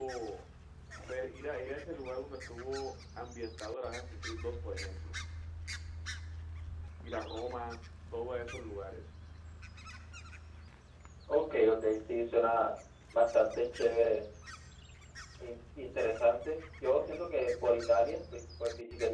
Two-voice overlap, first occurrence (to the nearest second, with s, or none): none